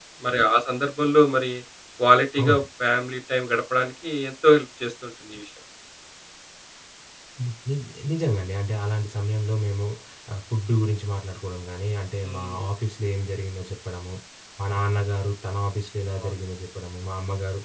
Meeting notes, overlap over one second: none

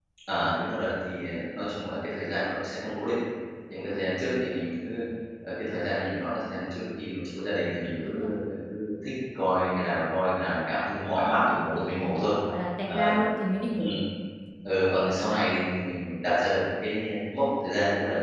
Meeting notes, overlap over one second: none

